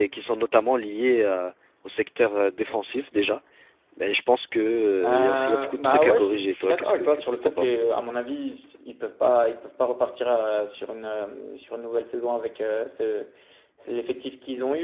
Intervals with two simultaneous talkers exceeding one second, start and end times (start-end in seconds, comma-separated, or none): 5.0-7.8